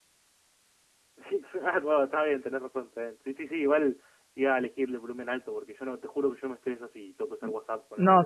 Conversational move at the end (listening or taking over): taking over